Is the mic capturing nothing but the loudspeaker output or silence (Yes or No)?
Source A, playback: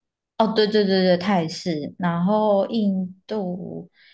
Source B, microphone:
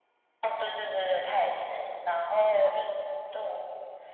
Yes